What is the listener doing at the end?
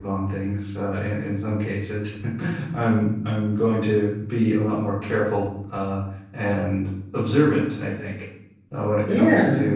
listening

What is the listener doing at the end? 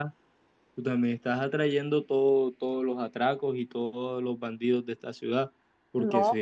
listening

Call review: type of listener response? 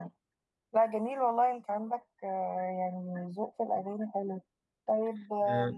listening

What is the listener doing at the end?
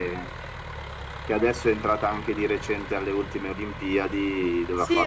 taking over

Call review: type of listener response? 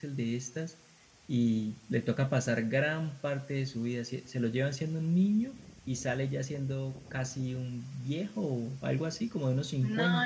taking over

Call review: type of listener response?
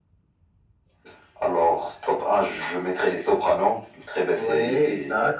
taking over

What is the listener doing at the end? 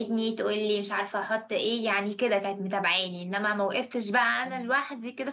listening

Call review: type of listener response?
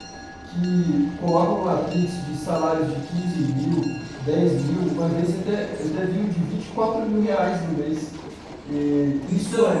listening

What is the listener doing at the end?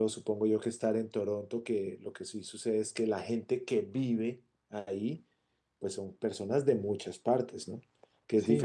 taking over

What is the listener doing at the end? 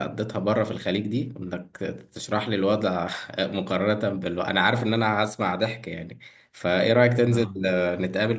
listening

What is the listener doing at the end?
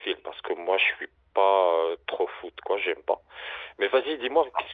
listening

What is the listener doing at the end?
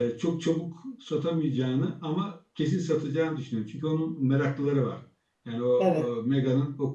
listening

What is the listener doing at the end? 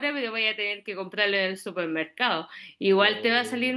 listening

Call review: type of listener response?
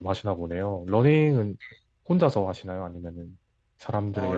taking over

